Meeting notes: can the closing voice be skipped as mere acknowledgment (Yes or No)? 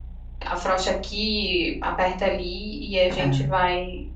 Yes